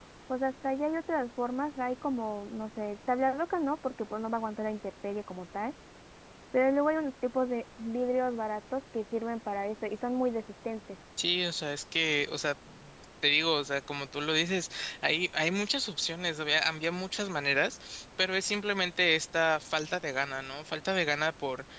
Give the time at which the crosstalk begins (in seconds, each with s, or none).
none